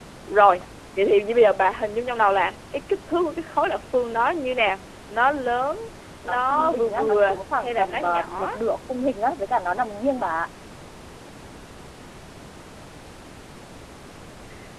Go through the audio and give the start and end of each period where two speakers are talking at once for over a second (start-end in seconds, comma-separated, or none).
6.2-8.5